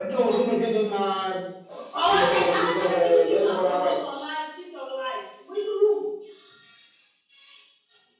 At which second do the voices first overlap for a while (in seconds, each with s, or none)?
2.1 s